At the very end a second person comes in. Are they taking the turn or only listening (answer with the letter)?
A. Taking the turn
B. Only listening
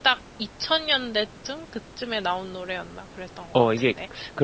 A